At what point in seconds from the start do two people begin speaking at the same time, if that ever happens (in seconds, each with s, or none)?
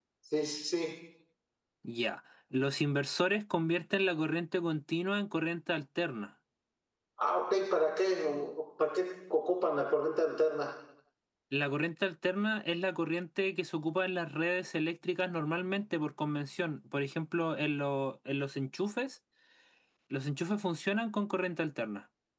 none